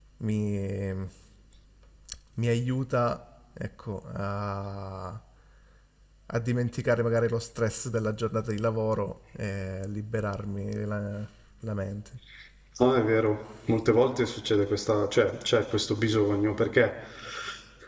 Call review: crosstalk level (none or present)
none